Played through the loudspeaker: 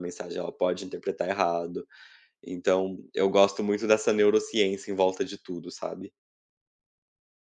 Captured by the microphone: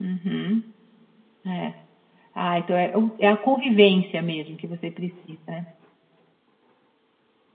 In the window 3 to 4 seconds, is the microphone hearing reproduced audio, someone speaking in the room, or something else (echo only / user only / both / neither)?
user only